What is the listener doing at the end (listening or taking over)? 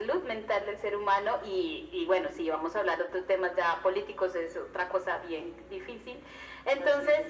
listening